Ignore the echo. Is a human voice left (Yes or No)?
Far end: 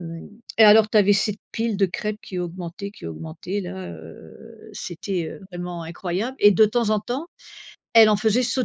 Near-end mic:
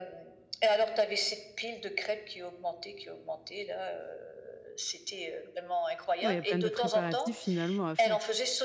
Yes